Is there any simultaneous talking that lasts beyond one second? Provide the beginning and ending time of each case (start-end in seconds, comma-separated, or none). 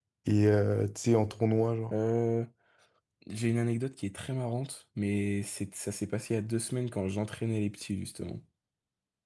none